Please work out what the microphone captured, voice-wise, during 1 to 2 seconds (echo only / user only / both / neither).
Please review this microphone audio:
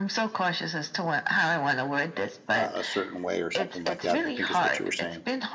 echo only